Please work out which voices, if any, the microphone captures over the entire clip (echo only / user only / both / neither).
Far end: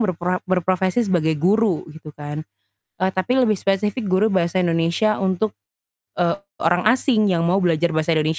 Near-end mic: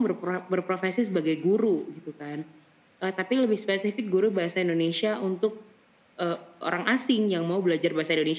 echo only